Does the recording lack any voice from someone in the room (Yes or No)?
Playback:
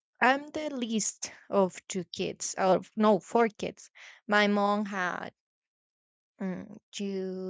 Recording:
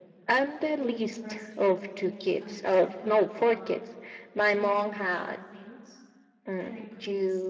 No